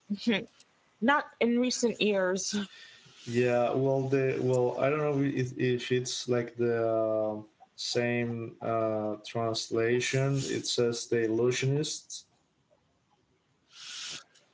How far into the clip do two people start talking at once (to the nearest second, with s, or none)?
none